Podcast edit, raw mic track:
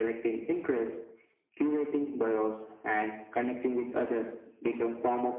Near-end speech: none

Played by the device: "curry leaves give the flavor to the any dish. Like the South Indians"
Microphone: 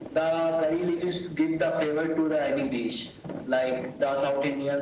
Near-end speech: none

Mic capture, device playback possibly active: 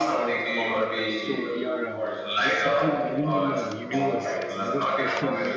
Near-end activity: present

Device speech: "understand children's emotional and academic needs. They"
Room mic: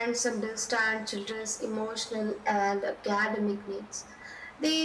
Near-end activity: none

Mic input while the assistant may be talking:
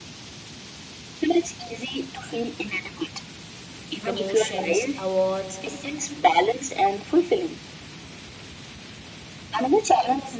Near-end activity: present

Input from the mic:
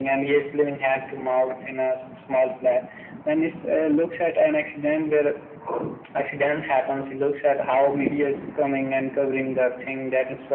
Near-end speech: none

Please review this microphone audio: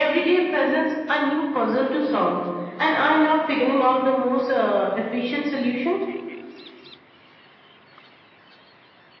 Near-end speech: none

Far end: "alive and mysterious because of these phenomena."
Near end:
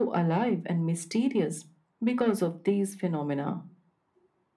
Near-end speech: none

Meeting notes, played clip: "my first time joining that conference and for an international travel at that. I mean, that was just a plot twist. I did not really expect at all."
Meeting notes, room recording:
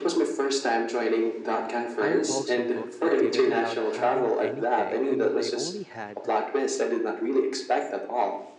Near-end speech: present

